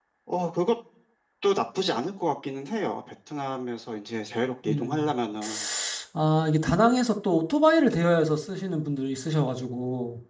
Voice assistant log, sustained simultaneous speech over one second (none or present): none